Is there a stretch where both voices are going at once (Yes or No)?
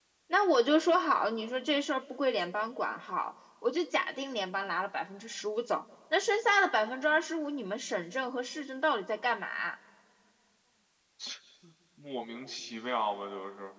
No